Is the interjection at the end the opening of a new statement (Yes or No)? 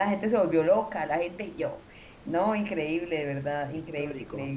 No